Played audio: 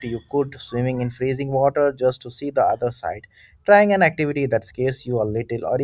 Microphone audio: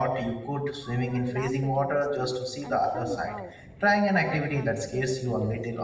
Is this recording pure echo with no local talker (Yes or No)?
No